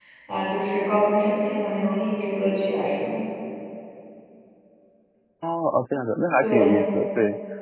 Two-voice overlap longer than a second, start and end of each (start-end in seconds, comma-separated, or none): none